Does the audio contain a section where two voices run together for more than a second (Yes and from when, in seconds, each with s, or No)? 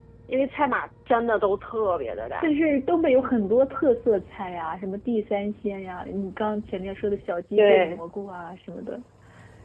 No